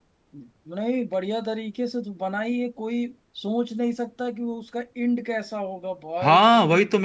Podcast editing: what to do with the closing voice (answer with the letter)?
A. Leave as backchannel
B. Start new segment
B